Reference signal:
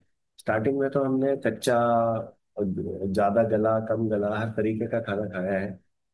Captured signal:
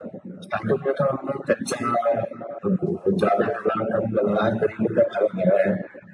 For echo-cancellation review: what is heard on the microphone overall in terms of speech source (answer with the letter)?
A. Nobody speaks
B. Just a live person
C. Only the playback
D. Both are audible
C